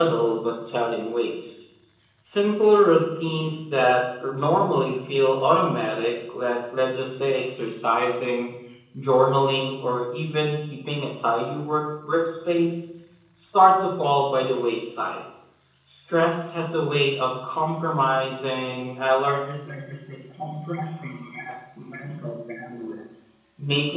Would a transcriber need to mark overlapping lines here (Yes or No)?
No